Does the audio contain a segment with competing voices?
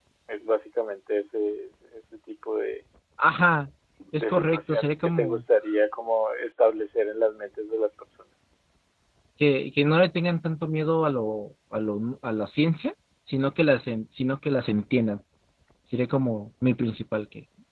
Yes, from 4.2 s

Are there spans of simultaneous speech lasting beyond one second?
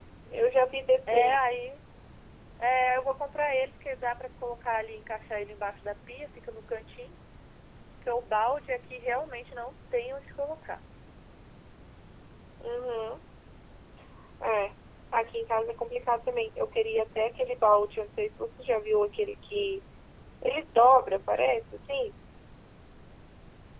No

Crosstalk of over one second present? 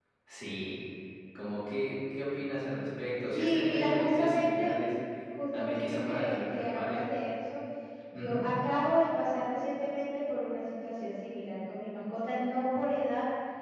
Yes, from 3.3 s

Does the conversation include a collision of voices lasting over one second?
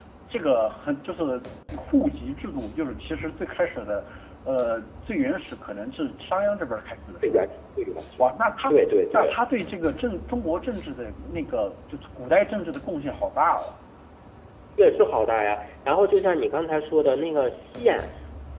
No

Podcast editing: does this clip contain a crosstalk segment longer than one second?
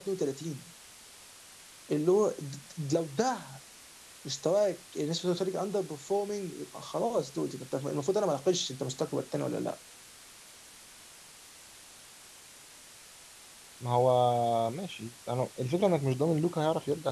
No

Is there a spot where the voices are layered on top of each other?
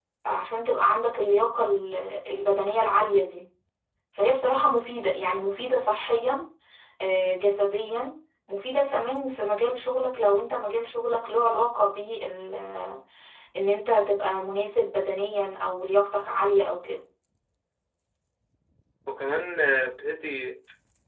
No

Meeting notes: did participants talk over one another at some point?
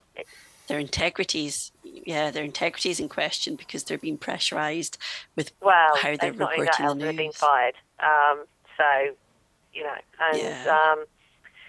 Yes, from 5.9 s

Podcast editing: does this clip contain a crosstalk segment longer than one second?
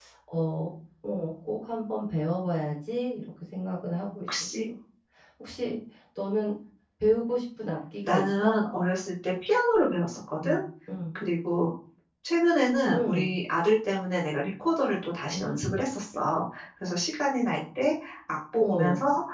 No

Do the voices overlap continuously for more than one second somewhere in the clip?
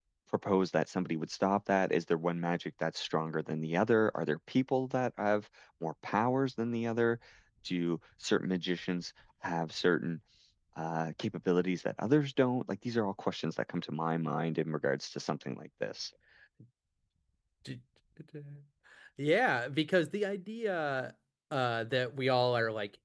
No

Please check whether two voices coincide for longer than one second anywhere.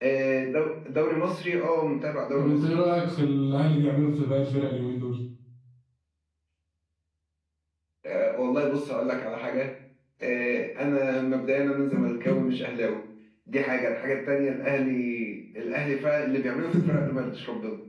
No

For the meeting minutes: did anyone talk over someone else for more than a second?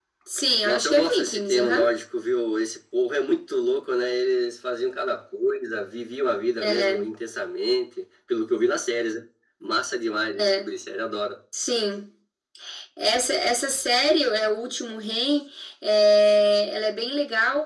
Yes, from 0.6 s

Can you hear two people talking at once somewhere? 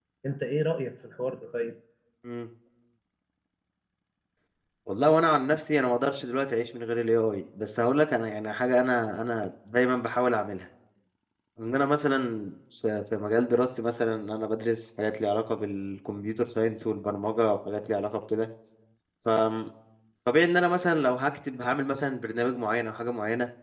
No

